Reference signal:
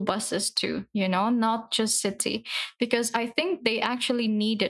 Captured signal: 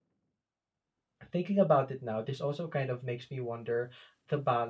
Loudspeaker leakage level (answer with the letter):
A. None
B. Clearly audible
A